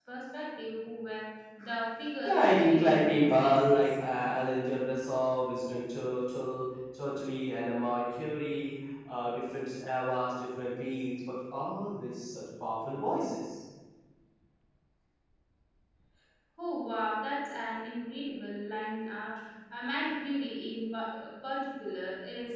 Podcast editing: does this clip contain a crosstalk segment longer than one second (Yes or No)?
Yes